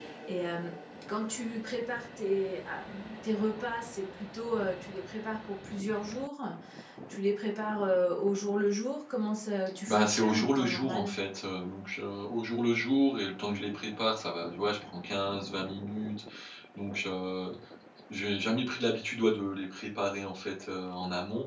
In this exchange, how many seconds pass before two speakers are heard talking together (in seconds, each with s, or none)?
9.9 s